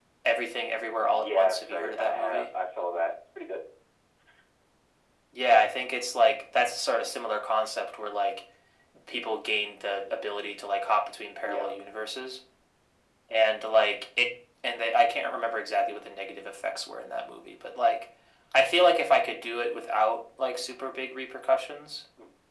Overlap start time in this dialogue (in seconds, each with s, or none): 1.1 s